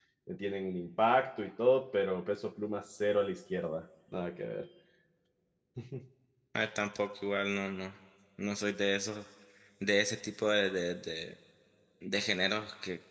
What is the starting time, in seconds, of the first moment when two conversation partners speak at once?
none

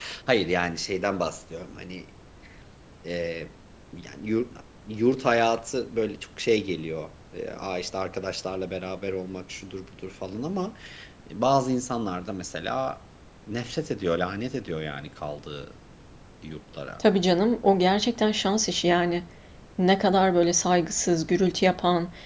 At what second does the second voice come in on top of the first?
none

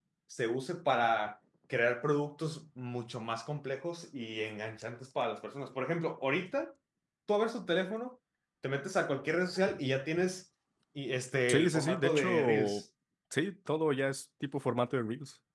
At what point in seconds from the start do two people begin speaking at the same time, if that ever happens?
11.5 s

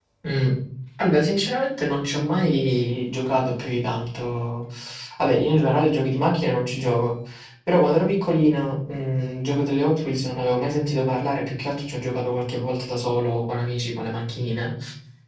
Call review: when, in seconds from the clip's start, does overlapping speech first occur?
none

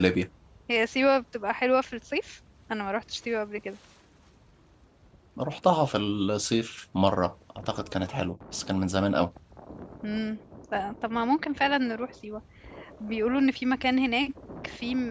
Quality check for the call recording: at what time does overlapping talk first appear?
none

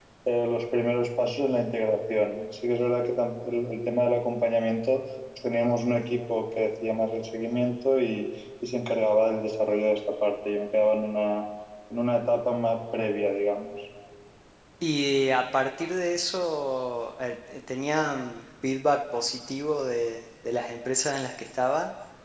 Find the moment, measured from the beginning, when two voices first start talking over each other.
none

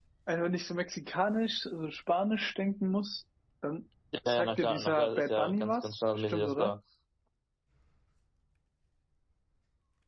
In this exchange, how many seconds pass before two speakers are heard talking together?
4.3 s

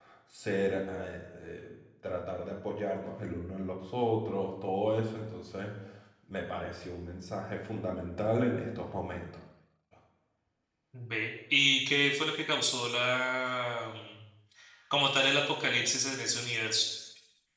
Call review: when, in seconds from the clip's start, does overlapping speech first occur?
none

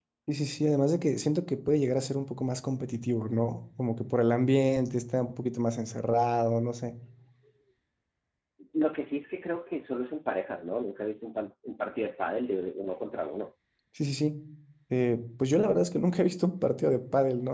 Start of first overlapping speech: none

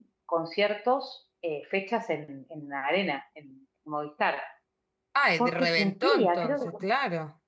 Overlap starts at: 5.4 s

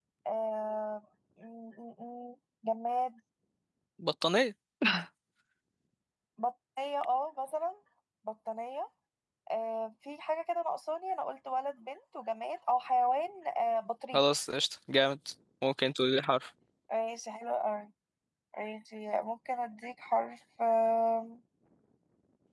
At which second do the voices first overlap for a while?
none

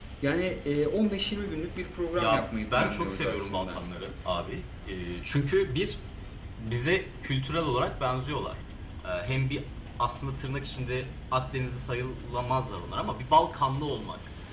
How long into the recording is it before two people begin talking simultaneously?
2.2 s

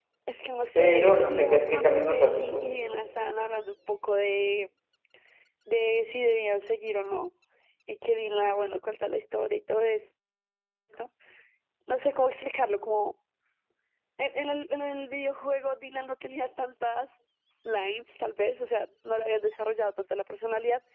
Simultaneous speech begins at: 0.8 s

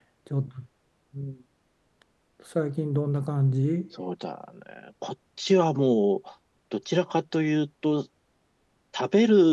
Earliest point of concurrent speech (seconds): none

